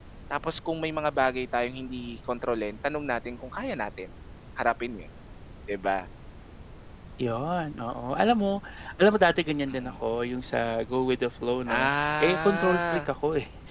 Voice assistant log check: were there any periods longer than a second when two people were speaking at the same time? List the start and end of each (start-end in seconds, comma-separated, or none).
11.7-13.1